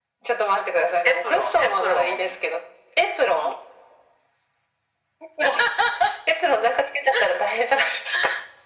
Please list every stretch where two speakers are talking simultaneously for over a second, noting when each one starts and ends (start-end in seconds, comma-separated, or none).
1.1-2.4